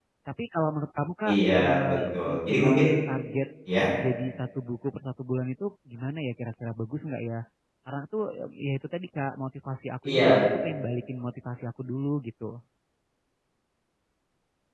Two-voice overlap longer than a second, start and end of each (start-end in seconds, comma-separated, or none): 1.3-2.8